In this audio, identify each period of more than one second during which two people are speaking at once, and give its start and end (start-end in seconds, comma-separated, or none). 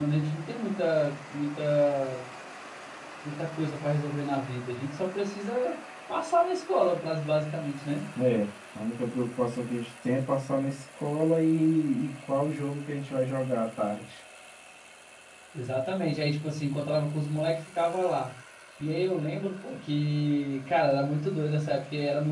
none